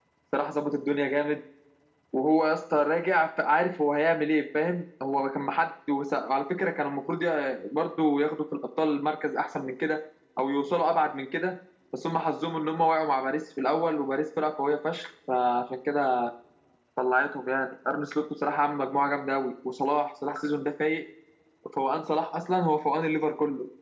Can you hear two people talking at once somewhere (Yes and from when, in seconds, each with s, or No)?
No